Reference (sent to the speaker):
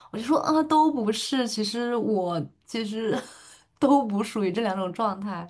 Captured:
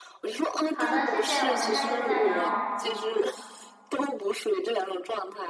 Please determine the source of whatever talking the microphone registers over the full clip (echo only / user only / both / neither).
both